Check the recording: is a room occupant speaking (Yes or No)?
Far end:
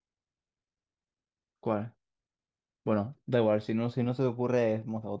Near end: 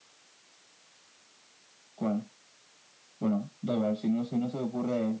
No